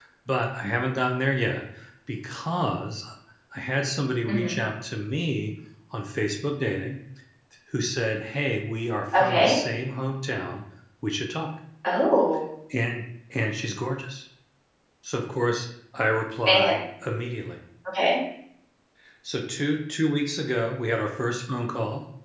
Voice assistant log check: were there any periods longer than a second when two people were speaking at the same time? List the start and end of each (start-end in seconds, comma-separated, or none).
none